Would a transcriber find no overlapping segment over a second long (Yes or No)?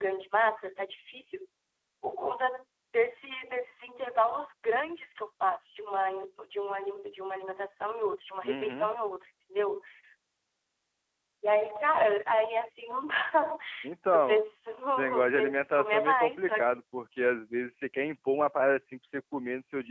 No